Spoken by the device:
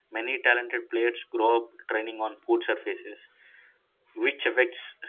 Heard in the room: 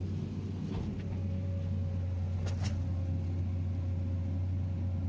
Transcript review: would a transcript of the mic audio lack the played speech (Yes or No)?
Yes